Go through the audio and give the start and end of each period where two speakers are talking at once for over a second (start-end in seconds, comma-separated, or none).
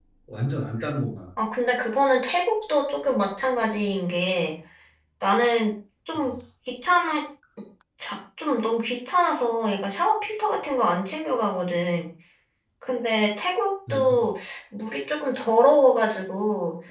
none